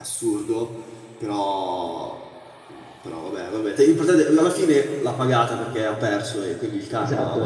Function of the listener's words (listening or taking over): taking over